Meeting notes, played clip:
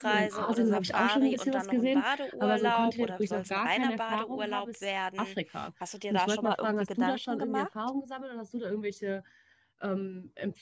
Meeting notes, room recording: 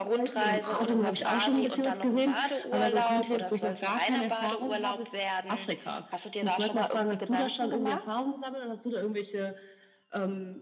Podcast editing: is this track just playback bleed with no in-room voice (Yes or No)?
Yes